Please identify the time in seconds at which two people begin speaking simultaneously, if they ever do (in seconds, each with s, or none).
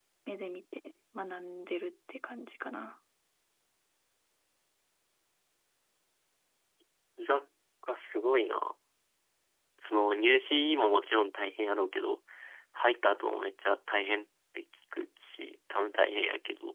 none